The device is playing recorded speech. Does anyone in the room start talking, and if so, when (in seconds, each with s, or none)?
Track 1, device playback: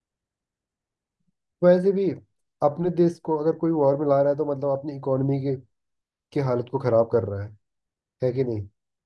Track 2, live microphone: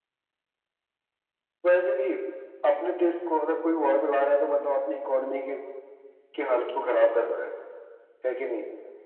none